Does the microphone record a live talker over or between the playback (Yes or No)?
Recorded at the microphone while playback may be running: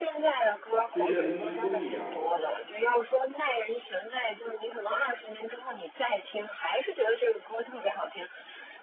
Yes